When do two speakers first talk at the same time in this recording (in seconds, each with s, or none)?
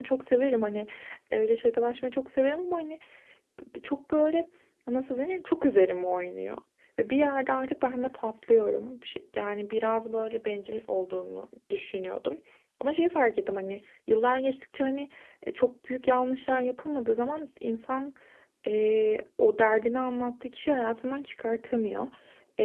none